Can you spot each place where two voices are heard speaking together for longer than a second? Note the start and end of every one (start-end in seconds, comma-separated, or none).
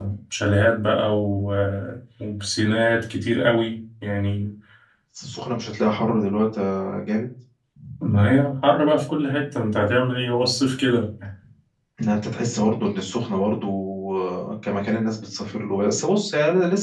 none